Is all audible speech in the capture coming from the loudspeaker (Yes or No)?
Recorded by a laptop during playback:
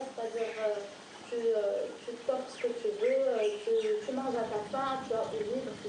Yes